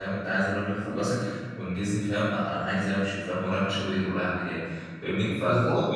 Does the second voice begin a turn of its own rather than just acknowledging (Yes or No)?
No